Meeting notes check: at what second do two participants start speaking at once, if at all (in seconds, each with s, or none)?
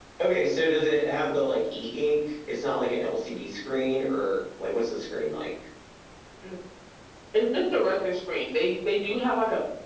none